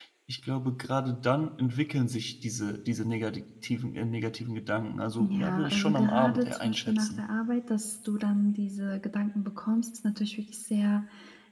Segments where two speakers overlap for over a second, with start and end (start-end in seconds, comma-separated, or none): 5.2-7.2